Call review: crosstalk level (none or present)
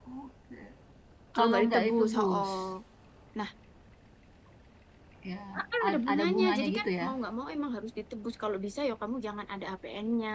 present